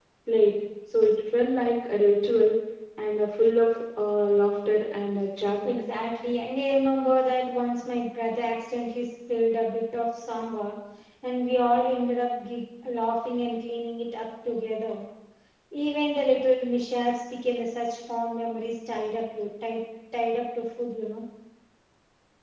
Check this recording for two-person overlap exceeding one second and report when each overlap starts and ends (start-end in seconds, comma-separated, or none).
none